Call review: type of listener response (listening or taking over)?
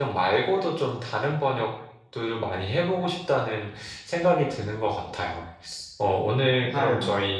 listening